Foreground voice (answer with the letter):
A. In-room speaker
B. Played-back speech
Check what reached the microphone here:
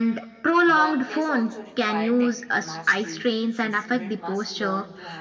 B